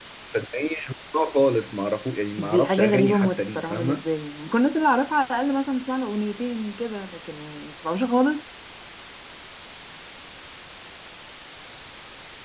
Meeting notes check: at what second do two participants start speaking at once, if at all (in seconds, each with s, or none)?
2.4 s